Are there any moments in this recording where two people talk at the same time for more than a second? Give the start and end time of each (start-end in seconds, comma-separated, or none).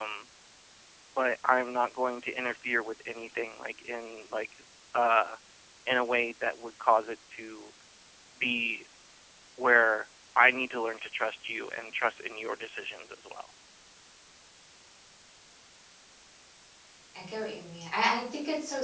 none